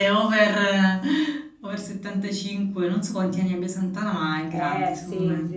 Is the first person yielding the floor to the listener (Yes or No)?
Yes